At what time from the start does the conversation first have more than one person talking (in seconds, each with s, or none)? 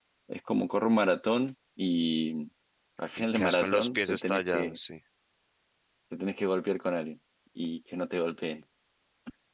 3.3 s